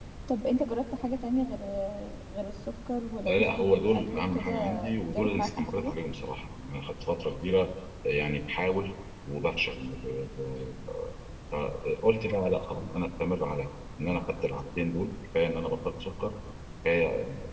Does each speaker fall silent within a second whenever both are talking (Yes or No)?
No